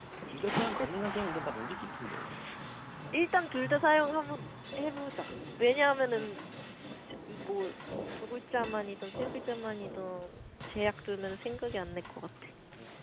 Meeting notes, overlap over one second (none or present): none